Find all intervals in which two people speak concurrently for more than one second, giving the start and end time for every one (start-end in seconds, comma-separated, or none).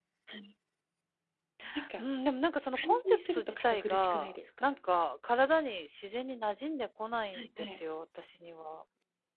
2.7-4.8